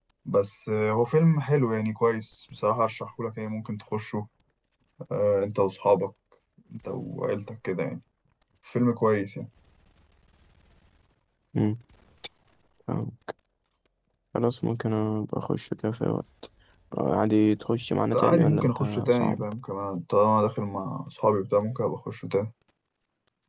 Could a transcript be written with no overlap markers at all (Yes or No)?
No